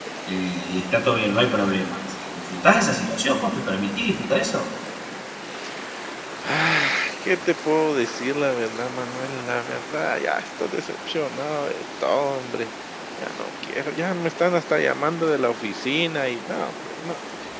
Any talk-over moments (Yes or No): No